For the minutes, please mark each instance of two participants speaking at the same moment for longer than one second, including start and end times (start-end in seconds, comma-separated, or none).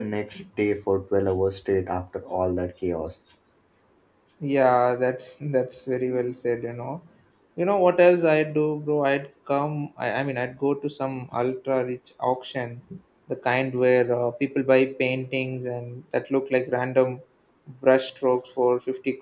none